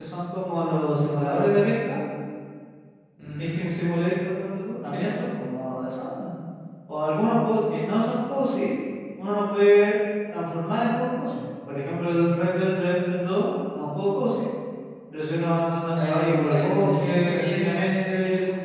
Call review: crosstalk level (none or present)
present